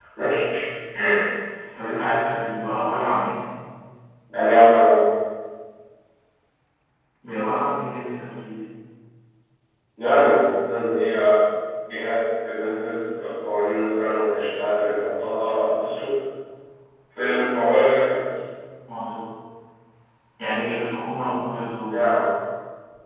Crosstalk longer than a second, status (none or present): none